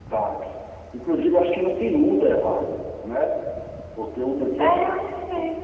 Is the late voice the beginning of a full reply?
Yes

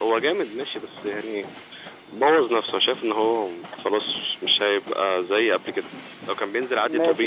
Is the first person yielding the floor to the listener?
Yes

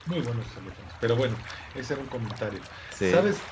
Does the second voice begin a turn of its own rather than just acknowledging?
No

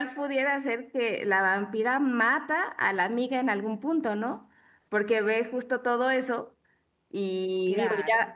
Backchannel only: Yes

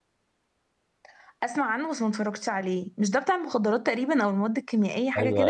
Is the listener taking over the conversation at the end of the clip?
Yes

